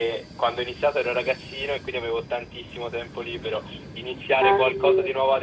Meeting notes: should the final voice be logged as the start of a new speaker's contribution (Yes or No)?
No